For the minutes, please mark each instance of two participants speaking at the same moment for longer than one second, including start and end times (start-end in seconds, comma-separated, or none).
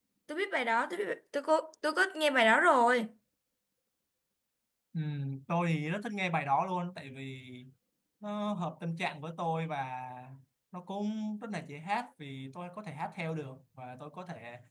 none